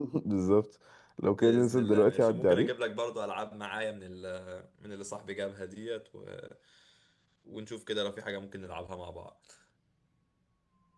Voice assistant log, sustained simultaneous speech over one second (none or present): present